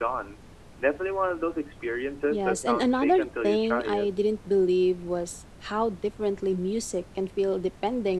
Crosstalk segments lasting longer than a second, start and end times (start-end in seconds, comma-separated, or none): 2.3-4.1